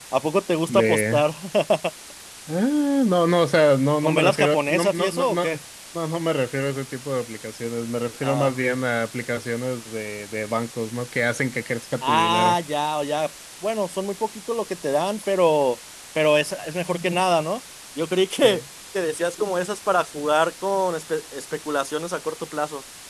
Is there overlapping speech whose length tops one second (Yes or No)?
Yes